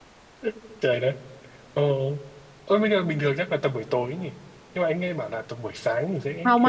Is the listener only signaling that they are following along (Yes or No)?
No